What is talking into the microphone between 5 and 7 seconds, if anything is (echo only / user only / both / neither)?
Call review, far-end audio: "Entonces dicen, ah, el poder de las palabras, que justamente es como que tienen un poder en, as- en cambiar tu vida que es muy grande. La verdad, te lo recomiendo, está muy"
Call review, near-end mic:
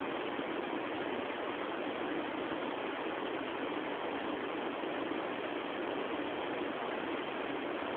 neither